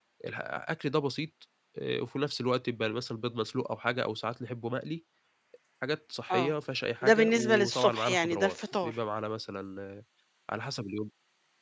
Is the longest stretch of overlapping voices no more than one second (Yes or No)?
No